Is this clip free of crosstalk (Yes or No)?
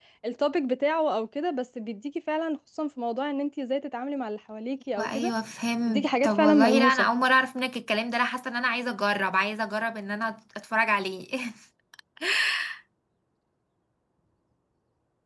No